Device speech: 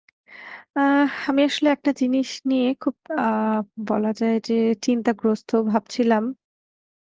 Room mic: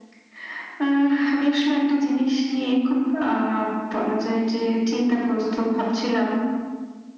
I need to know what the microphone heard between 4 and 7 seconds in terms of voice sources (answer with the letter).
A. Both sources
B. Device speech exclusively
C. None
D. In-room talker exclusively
B